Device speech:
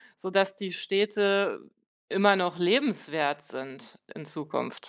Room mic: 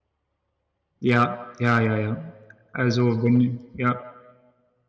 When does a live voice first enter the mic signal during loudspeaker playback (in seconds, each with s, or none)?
1.0 s